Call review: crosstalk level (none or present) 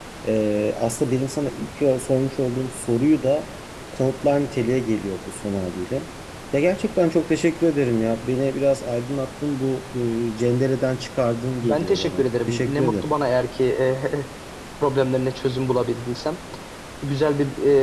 present